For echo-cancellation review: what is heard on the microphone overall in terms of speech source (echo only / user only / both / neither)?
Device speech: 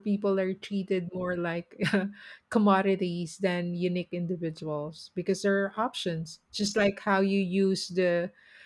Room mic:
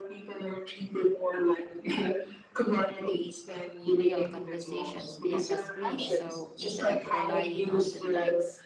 both